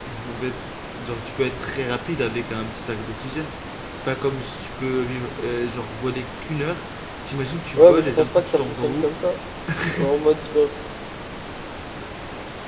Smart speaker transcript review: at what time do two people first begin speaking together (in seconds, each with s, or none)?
7.8 s